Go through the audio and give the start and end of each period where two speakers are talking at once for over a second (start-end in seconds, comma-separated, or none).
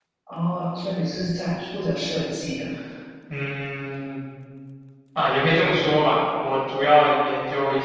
none